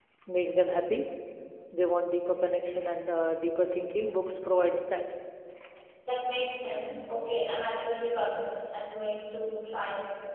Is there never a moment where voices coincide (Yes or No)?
Yes